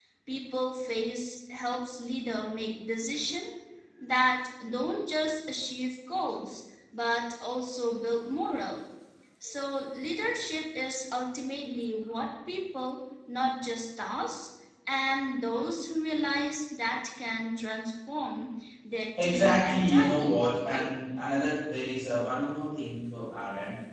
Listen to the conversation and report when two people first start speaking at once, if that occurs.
19 s

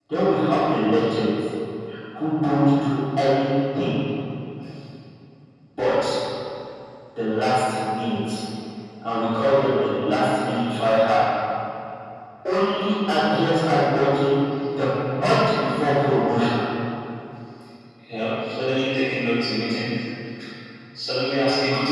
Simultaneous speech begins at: none

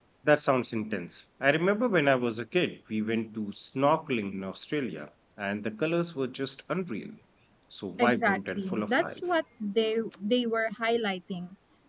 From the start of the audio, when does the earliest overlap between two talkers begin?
8 s

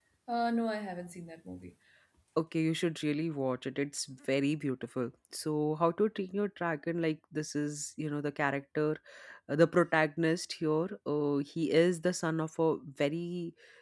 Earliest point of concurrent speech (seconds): none

